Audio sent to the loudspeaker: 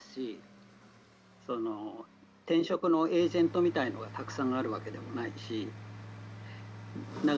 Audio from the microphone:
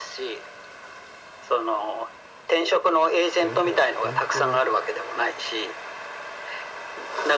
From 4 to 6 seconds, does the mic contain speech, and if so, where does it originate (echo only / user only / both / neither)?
both